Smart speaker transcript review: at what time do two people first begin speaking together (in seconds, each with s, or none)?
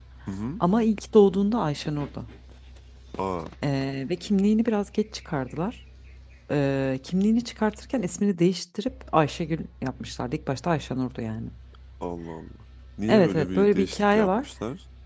13.1 s